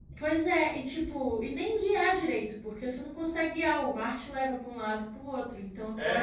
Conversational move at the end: taking over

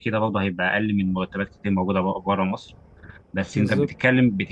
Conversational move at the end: listening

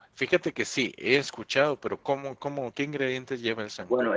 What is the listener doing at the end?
taking over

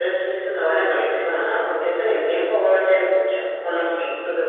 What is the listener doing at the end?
taking over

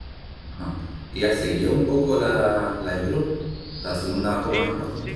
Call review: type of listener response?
taking over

